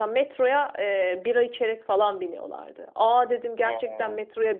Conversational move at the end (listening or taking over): listening